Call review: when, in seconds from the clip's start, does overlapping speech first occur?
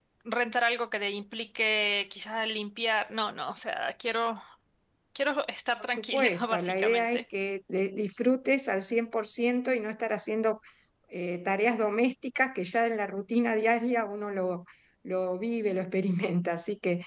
5.8 s

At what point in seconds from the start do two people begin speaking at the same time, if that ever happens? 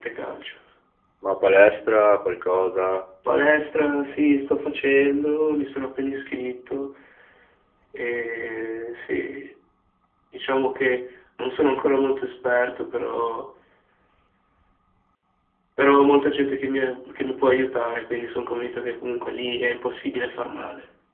none

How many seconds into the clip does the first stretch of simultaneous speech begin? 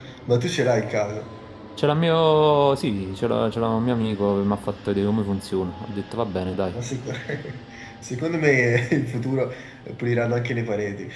none

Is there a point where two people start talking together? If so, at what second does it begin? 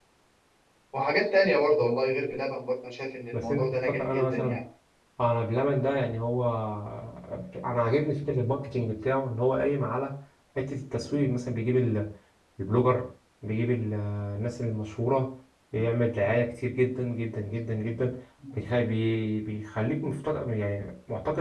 3.3 s

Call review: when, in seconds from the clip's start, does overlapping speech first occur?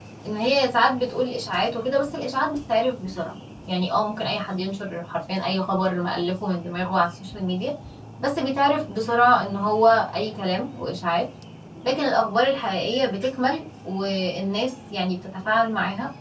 none

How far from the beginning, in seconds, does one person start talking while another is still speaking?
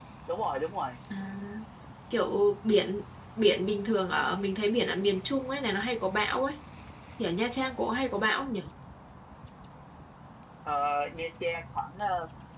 none

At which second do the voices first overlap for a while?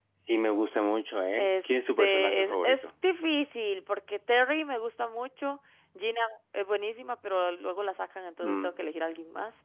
1.3 s

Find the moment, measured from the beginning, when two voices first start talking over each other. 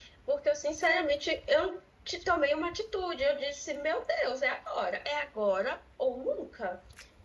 none

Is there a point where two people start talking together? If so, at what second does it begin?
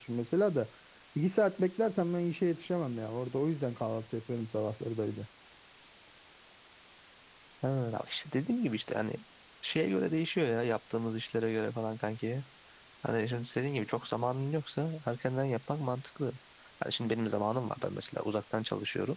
none

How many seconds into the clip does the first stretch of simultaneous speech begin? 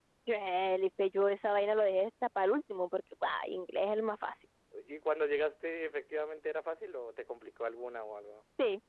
none

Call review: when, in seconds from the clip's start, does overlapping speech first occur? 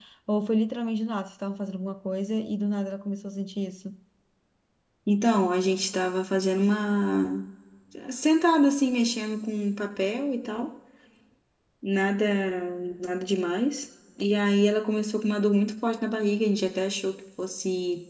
none

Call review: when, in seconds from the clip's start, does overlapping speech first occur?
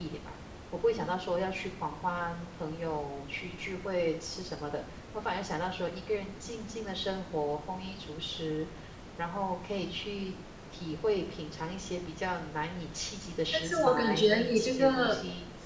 13.5 s

